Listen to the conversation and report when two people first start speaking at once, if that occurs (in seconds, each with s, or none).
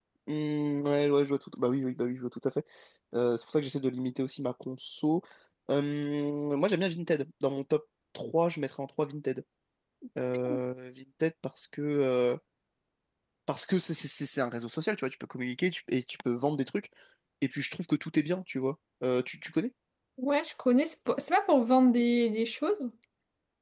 none